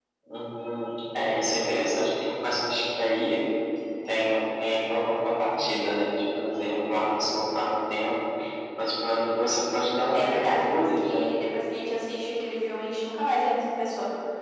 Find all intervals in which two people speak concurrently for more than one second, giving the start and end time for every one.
10.1-11.3

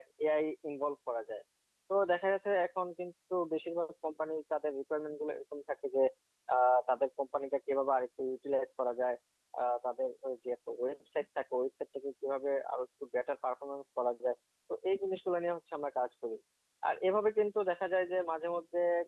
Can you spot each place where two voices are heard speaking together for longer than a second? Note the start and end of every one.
none

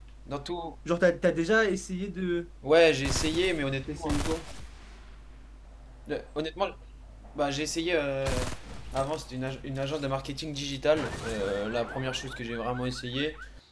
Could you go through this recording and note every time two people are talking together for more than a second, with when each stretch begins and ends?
none

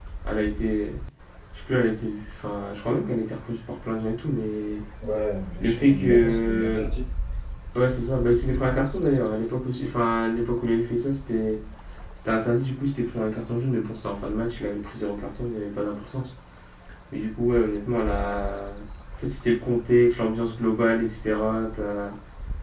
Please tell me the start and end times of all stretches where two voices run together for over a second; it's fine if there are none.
5.6-6.8

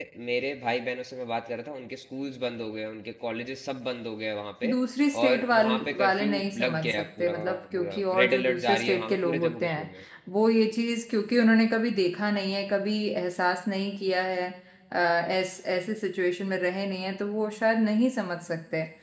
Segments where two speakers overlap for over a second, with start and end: 5.2-9.9

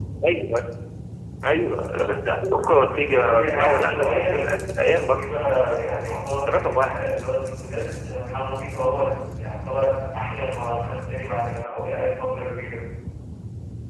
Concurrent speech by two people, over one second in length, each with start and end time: 2.9-4.5

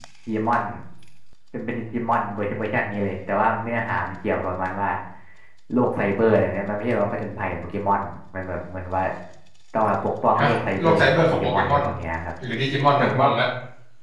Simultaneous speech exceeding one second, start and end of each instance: 10.4-11.8

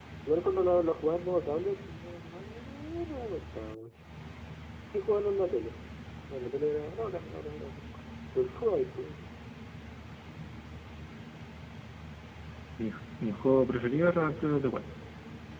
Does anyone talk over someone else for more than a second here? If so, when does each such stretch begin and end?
none

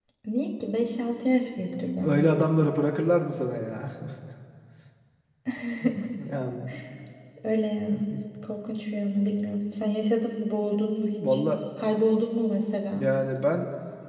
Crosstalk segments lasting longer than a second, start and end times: none

